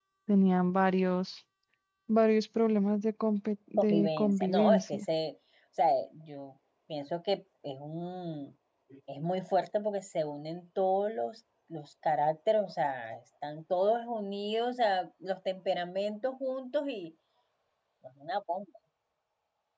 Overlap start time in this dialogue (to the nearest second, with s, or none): 4 s